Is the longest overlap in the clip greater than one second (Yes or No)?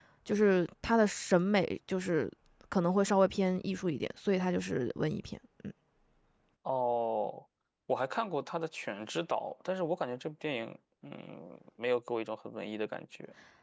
No